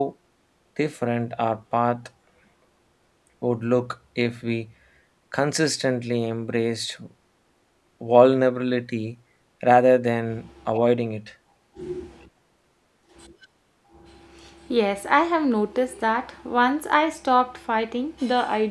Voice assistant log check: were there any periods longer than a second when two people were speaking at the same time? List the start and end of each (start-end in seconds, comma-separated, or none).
none